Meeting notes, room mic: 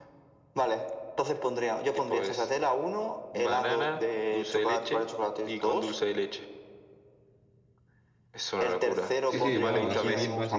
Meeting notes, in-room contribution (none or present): present